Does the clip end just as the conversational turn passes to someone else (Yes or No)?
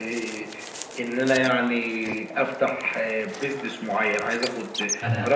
No